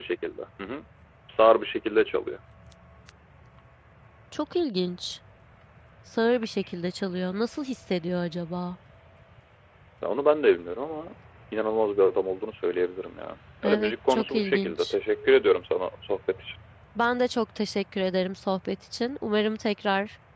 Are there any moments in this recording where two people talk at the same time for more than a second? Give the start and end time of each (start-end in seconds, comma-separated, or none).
13.6-14.9